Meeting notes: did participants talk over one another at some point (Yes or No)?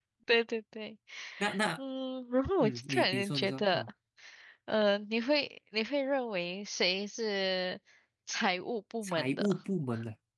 Yes